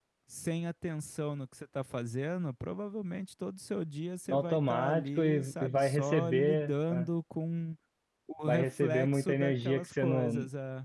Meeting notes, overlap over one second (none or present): present